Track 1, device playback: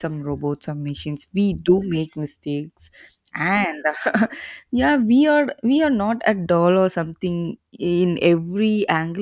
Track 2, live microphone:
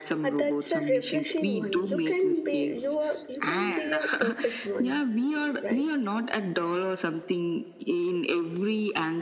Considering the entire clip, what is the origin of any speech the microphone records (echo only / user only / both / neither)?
both